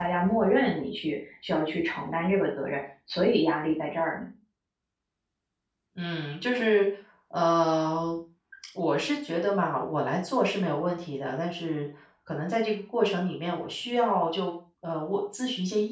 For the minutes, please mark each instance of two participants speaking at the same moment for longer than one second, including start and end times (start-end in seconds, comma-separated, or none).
none